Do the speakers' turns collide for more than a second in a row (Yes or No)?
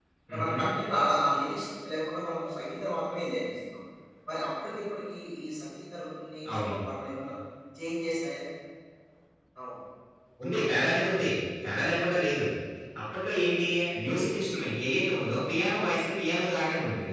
No